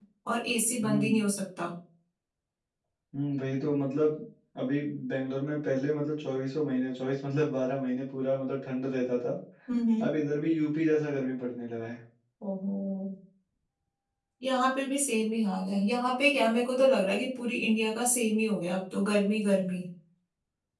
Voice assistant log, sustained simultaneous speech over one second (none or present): none